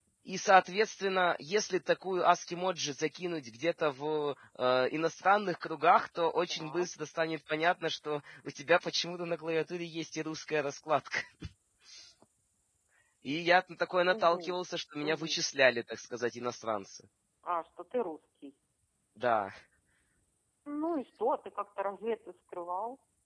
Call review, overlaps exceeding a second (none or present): none